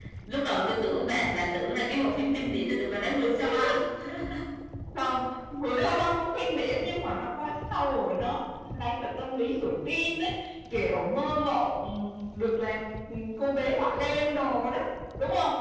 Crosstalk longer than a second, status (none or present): none